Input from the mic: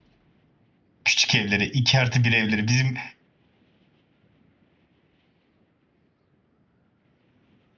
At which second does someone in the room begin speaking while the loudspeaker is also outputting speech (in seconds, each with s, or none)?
1.1 s